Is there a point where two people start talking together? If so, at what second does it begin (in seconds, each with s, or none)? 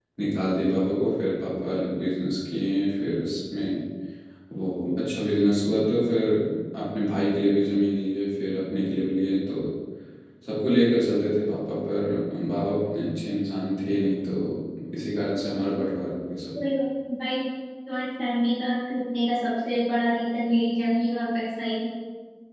none